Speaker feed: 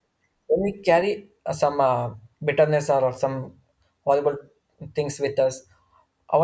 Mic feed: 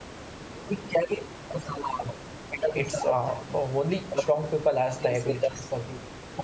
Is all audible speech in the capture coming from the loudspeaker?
No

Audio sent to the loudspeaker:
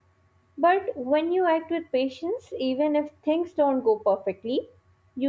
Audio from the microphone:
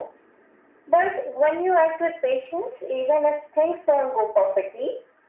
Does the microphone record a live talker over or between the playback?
No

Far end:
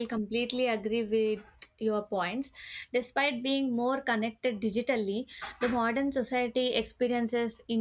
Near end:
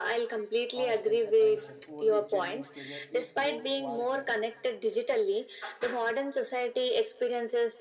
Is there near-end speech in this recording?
Yes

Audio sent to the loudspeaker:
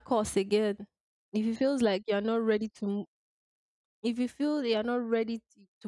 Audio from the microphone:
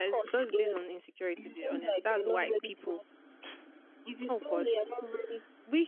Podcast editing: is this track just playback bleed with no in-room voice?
No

